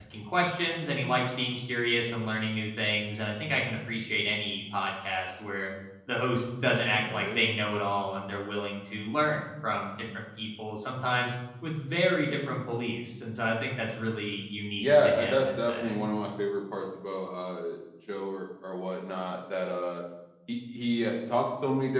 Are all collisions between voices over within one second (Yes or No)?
No